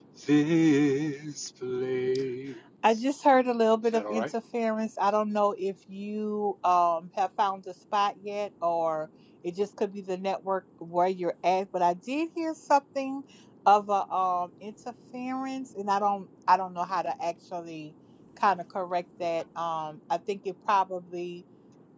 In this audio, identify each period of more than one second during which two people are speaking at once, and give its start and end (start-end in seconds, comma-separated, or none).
none